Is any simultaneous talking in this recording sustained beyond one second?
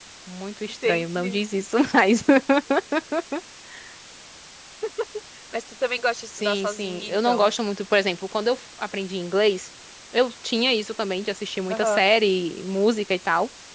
Yes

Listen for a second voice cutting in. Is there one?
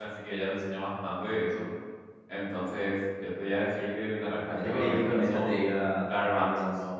Yes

